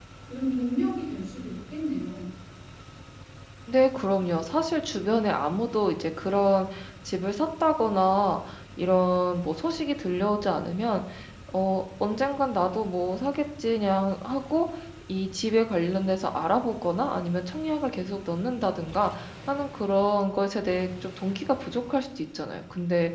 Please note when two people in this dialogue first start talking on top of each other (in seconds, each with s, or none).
none